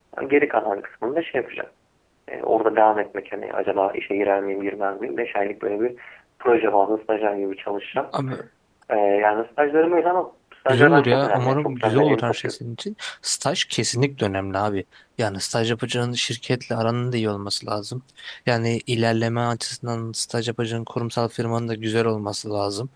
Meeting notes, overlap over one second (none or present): present